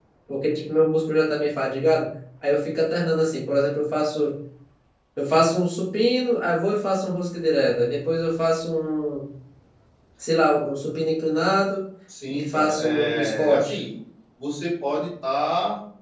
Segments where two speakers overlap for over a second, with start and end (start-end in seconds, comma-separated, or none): 12.3-13.8